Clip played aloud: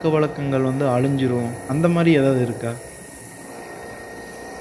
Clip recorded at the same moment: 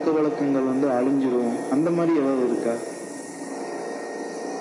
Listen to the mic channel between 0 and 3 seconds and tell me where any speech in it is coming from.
echo only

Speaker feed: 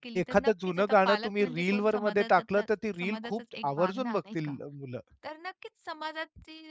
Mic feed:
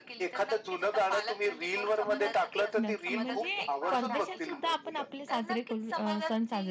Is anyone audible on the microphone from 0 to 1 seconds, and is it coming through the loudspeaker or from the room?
echo only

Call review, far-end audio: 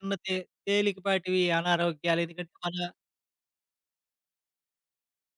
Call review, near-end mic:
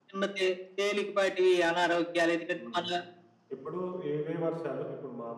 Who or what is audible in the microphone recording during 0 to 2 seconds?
echo only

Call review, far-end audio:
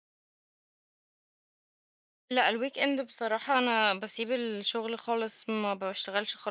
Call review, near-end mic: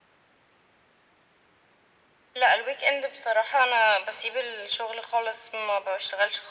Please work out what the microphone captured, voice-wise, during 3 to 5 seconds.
echo only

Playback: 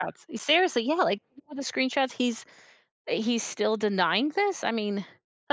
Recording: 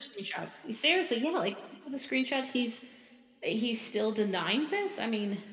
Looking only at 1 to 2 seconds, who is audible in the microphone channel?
echo only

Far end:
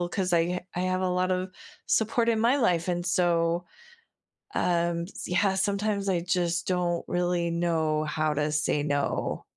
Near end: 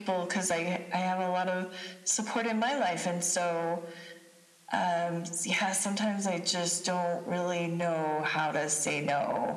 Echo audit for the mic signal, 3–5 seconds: echo only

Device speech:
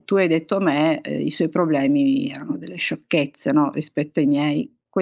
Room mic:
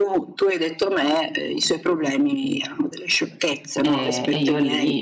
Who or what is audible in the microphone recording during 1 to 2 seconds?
echo only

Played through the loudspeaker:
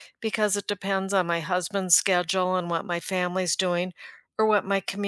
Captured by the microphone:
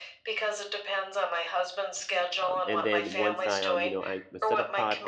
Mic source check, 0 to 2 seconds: echo only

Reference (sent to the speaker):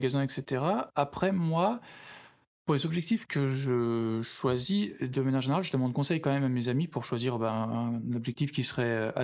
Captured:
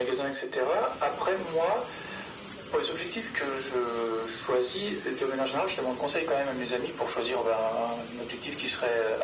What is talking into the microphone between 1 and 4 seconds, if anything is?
echo only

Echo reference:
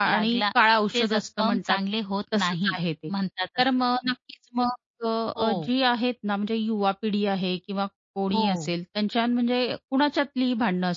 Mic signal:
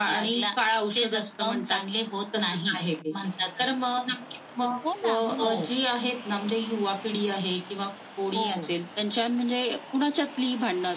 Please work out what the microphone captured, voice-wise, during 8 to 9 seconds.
echo only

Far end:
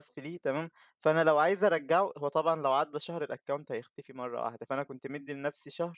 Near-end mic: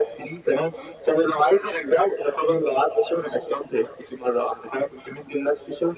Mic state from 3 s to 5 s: echo only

